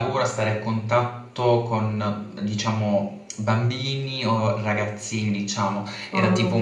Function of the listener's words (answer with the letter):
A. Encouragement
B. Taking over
A